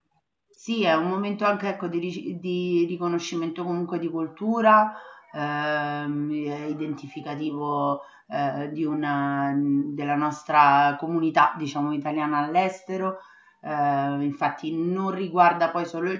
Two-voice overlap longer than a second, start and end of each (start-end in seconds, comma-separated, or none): none